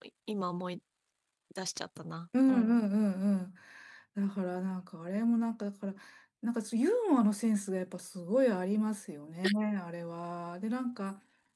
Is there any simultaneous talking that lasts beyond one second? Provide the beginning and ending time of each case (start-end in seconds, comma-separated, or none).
none